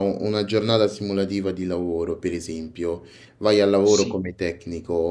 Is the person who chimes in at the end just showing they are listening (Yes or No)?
Yes